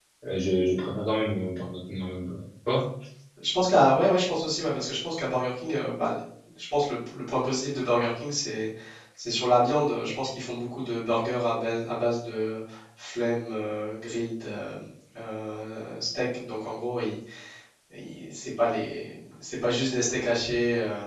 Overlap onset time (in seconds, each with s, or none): none